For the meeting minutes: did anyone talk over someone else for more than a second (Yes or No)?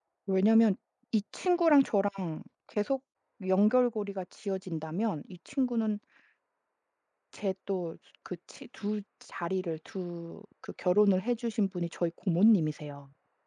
No